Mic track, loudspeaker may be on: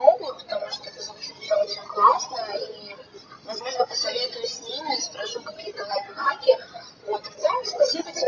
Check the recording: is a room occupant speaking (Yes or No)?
No